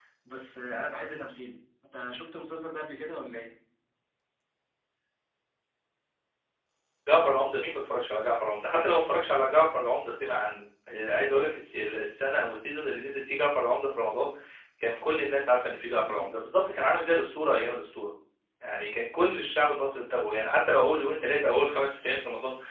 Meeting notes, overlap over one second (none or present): none